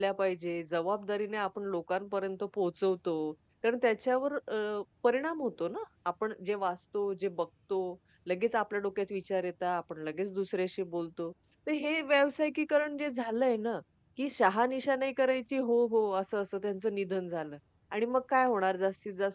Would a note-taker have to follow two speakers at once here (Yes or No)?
No